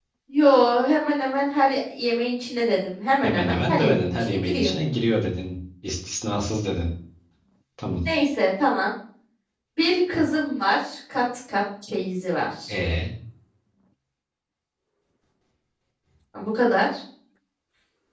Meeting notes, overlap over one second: present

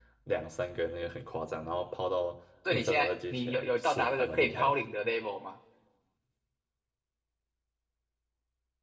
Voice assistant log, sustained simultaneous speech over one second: present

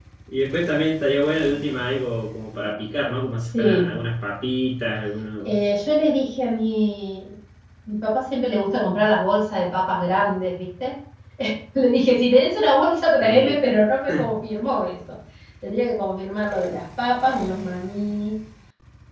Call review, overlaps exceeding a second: none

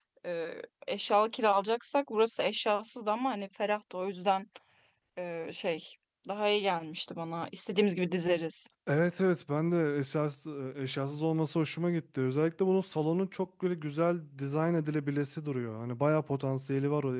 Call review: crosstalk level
none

